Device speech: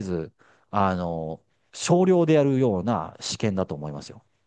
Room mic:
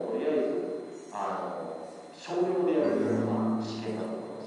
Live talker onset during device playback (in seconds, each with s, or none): 2.8 s